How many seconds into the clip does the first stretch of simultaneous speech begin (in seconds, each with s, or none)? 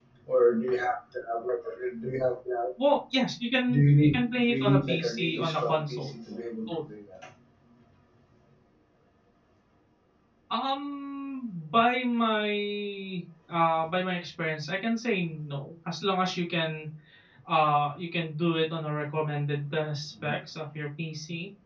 3.7 s